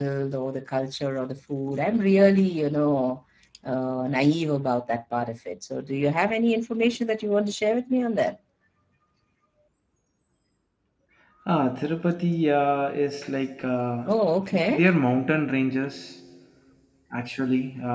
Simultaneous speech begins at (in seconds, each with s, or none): none